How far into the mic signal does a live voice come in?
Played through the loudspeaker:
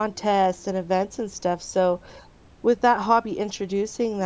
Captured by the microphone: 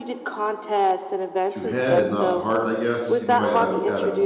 1.5 s

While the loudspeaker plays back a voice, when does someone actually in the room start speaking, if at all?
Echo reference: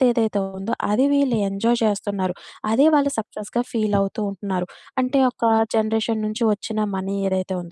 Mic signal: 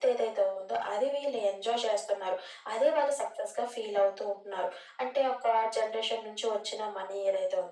none

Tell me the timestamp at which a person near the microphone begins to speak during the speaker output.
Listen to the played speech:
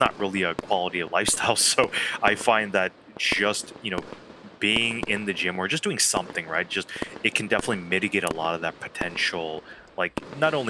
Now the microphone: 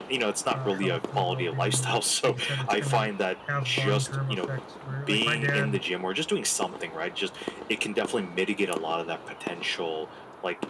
0.5 s

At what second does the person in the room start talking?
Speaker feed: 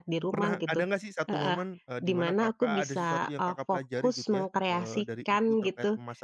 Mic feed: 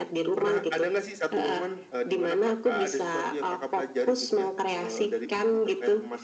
none

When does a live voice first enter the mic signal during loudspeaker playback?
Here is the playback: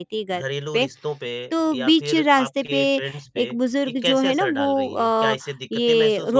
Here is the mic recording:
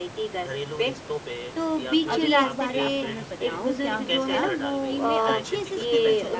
2.1 s

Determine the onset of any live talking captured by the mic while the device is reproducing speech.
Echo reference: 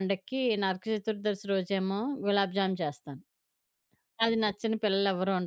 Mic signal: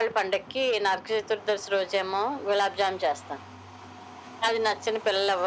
none

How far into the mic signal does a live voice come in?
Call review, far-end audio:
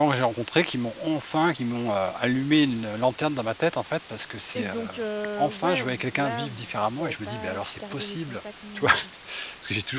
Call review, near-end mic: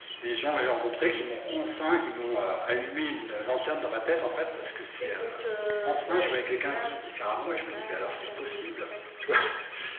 none

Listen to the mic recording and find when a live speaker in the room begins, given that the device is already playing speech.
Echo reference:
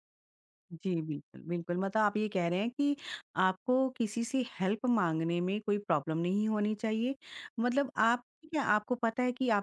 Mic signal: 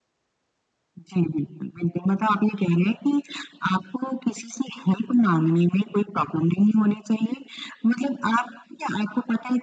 none

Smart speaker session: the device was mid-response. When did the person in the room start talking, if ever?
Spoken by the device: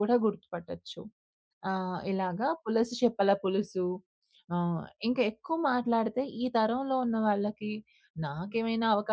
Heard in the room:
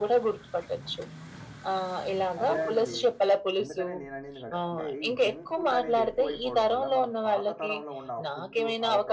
2.4 s

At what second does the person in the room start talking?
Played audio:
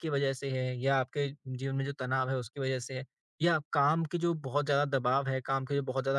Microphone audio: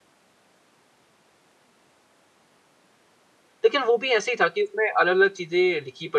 3.6 s

